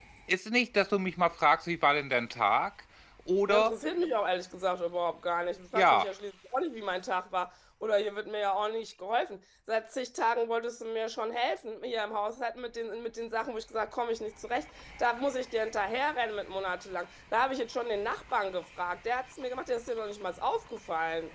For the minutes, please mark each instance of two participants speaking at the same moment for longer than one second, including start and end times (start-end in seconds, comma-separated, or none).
none